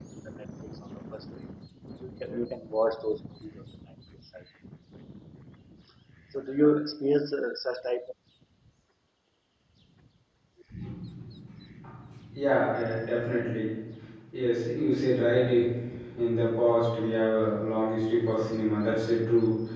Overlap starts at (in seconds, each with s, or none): none